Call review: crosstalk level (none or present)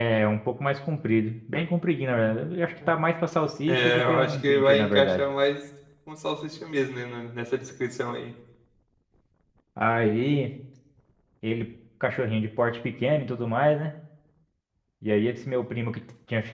present